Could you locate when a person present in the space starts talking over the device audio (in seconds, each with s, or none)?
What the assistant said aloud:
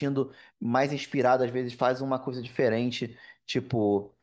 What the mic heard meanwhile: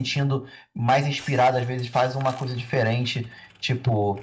none